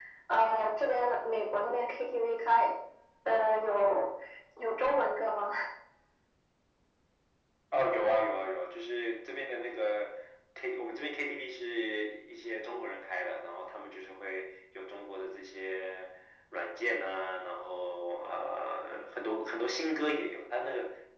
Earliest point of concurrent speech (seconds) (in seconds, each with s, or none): none